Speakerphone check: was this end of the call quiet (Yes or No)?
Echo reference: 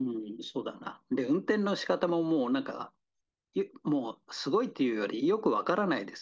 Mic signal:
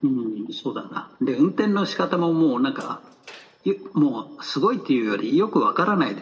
Yes